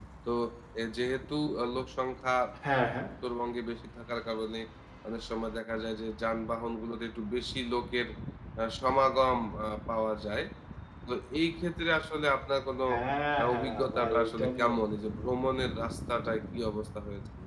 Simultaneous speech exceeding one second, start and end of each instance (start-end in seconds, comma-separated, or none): 13.4-14.8